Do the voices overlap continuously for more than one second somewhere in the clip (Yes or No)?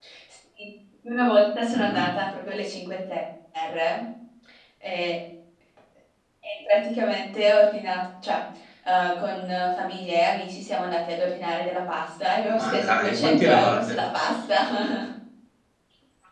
Yes